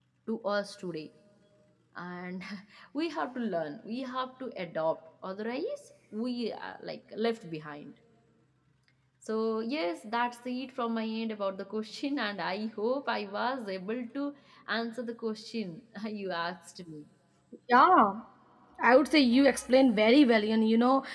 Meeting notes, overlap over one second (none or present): none